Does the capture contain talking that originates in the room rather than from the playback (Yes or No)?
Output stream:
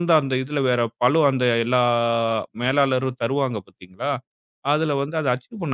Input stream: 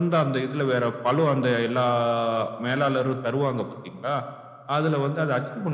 No